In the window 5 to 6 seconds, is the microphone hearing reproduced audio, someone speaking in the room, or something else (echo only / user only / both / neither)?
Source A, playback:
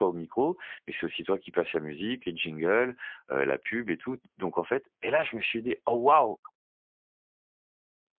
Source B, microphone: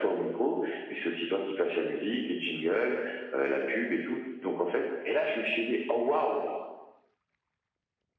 echo only